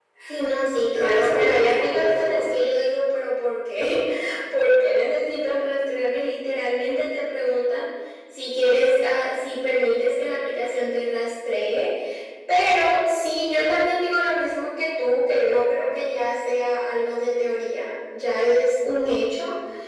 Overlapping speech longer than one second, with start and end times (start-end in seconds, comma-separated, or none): 0.9-2.4